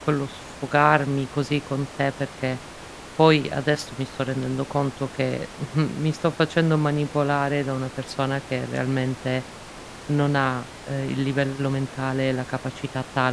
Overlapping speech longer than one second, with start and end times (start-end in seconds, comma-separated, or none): none